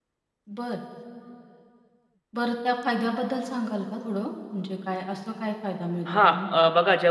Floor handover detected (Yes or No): Yes